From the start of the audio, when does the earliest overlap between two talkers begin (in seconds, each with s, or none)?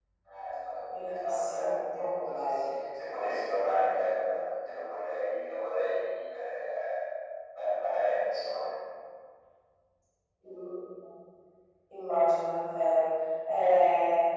0.9 s